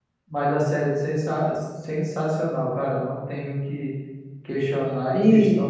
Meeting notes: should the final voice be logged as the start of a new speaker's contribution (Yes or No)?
Yes